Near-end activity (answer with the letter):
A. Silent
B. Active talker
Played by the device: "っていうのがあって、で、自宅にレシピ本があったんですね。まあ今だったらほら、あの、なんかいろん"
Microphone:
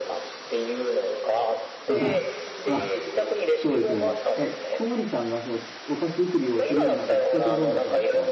B